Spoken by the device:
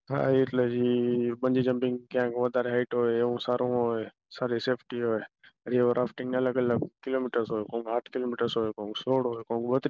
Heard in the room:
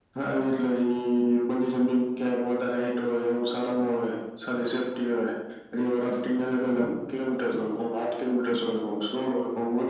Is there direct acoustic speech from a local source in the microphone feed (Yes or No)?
No